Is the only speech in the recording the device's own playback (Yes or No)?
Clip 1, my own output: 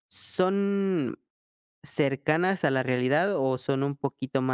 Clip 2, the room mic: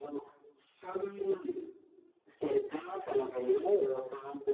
Yes